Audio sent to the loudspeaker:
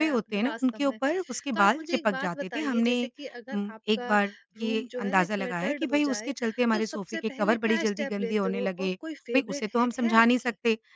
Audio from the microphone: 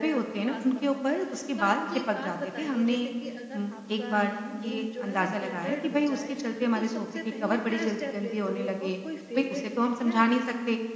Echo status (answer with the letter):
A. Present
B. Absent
A